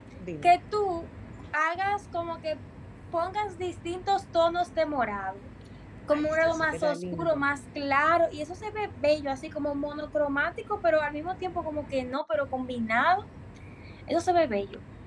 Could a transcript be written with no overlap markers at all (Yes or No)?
No